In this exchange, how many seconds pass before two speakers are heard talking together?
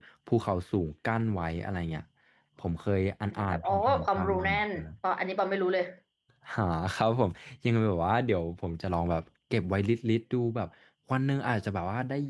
3.3 s

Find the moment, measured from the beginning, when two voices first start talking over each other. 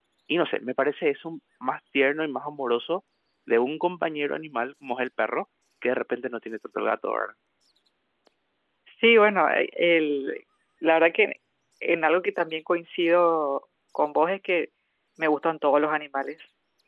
none

